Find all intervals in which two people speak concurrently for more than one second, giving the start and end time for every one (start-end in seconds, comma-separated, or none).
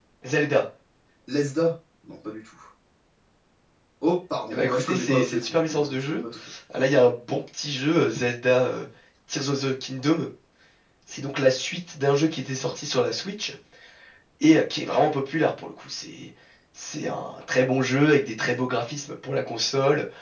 4.5-6.2